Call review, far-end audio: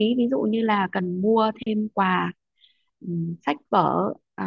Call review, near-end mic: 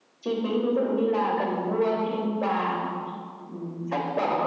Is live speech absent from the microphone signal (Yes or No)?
Yes